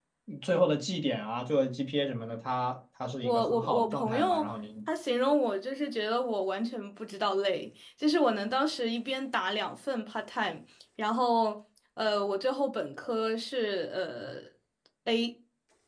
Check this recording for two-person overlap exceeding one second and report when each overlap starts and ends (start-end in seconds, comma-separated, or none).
3.2-4.4